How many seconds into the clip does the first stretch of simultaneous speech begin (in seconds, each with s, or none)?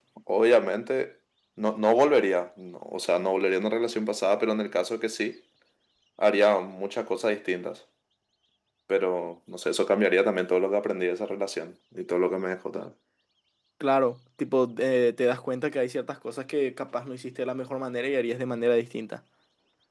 none